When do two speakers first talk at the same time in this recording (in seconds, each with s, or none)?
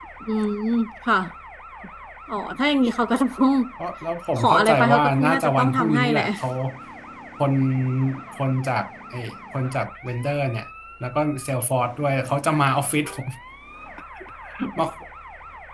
4.4 s